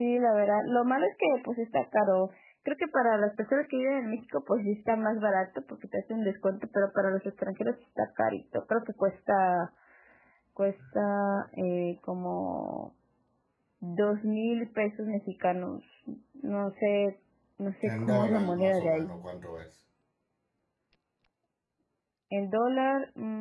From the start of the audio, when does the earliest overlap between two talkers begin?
17.8 s

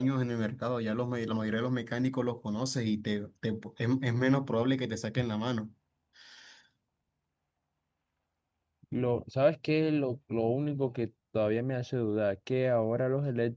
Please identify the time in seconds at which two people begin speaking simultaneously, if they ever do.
none

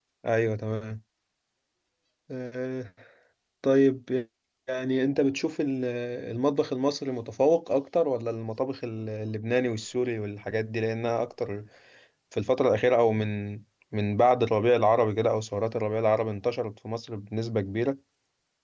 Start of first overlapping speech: none

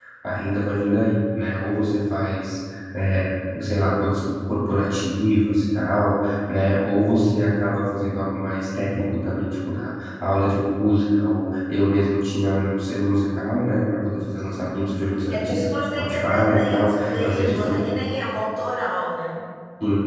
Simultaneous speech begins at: 15.1 s

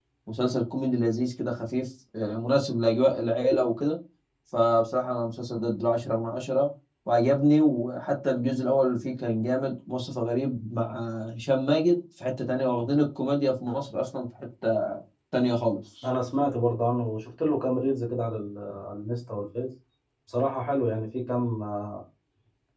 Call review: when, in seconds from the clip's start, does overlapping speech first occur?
none

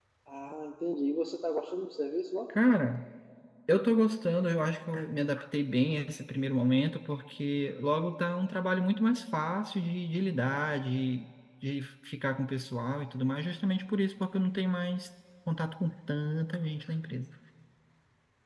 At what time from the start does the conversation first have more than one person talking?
none

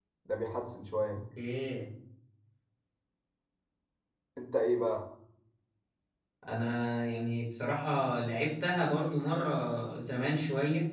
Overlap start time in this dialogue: none

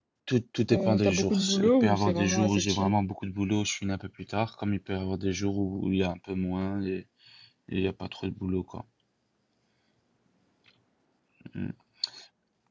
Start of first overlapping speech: 0.7 s

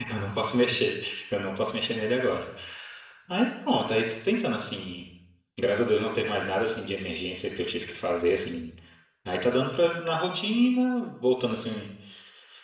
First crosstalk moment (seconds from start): none

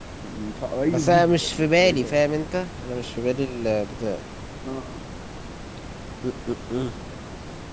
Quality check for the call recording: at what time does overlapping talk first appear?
0.9 s

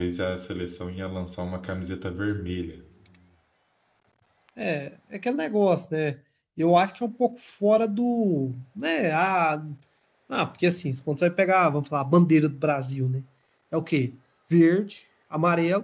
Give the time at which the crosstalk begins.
none

